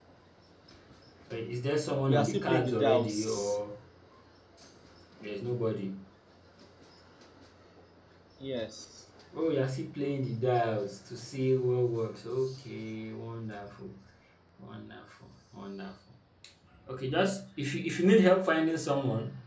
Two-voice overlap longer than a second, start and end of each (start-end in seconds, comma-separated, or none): 2.0-3.6